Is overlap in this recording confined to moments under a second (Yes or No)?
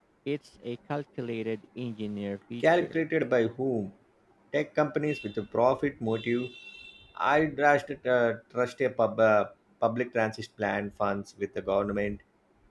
Yes